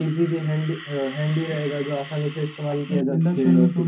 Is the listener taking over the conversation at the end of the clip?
Yes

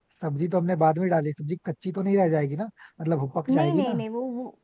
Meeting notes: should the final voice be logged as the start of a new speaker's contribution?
Yes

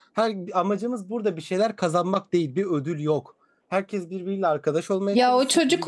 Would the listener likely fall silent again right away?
No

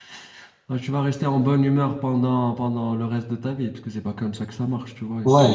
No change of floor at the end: No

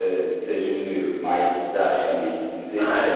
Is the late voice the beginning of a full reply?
Yes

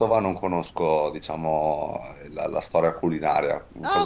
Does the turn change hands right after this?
Yes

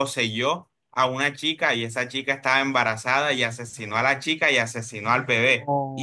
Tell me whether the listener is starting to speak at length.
No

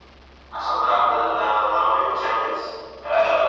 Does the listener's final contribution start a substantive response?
No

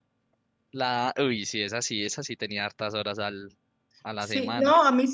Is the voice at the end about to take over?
Yes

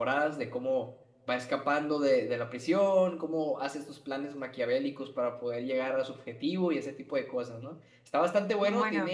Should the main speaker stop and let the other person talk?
No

